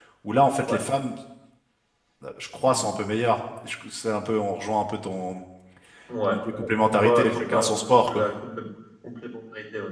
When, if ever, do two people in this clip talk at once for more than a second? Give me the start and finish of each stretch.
6.3-8.2

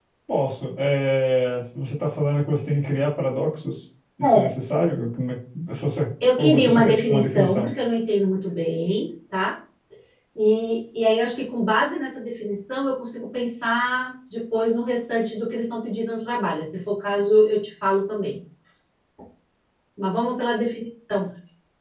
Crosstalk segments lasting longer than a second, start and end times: 6.4-7.7

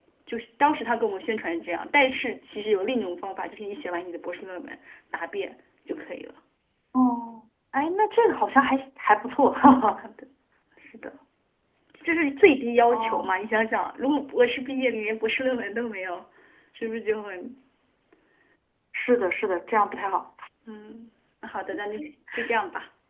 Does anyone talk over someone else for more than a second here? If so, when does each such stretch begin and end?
none

